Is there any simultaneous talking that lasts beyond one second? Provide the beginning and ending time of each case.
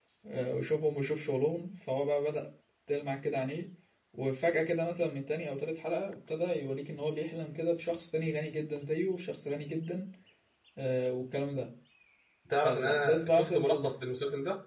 12.6-13.9

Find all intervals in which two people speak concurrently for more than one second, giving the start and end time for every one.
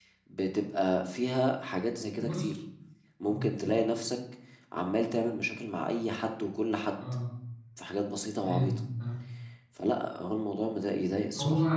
none

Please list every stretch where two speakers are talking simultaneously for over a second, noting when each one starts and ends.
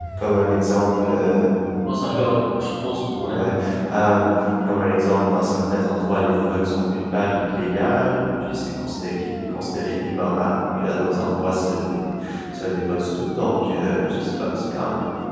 none

